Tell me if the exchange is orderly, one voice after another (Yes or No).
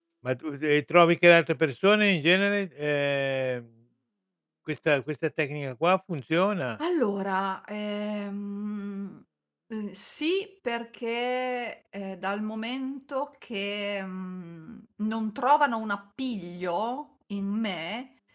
Yes